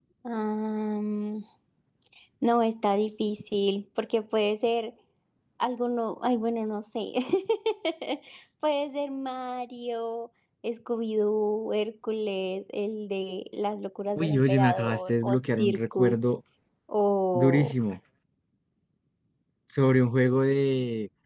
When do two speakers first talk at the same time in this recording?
14.2 s

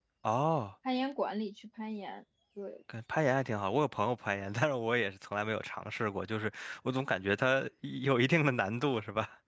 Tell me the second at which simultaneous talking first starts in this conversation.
none

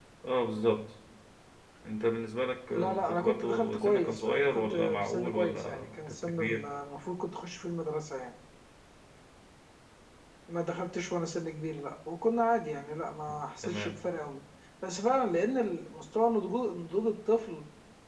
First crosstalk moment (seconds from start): 2.7 s

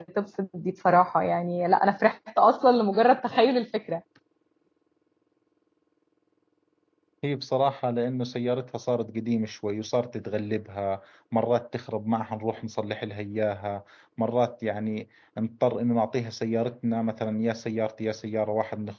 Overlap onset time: none

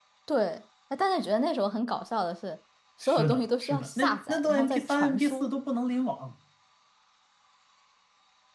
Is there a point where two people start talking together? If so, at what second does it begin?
3.0 s

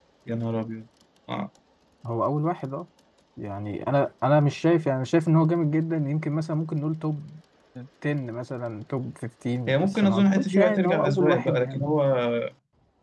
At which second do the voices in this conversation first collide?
9.7 s

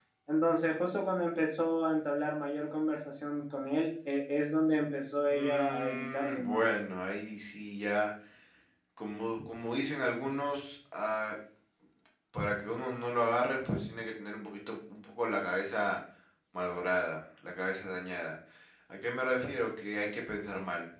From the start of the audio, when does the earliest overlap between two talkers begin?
5.3 s

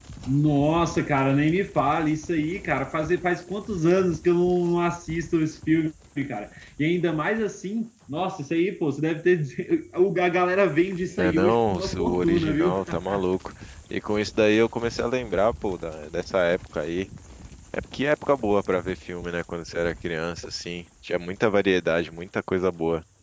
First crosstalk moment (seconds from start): 11.0 s

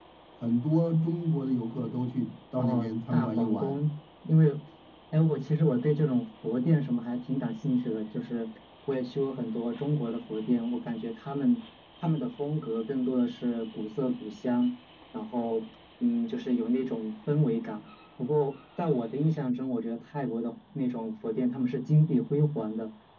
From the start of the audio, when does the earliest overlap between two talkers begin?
2.6 s

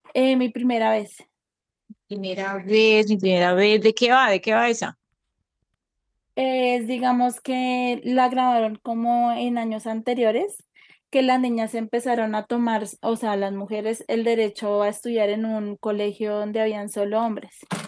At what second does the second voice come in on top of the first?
none

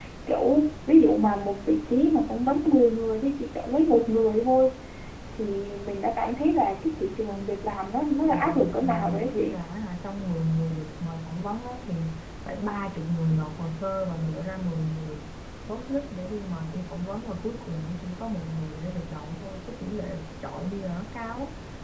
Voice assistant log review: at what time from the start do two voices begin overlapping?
8.3 s

